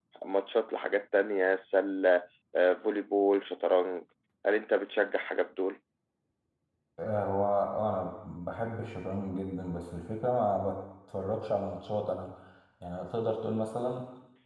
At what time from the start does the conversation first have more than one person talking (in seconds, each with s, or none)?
none